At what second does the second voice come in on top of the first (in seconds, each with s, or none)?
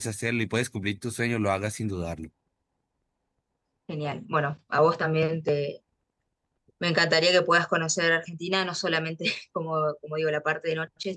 none